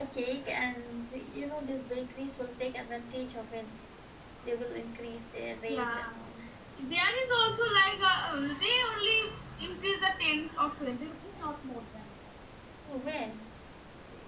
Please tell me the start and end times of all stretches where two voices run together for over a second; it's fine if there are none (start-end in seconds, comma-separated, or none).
none